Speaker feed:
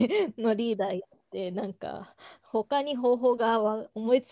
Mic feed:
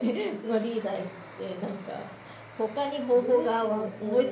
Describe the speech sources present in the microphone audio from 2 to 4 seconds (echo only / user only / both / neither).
both